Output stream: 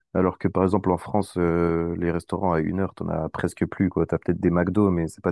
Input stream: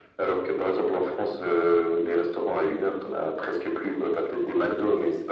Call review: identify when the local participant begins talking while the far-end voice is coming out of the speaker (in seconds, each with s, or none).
none